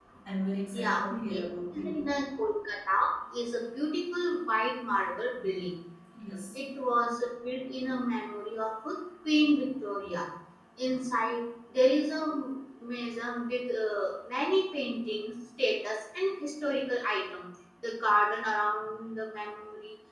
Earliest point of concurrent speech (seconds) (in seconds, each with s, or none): 0.8 s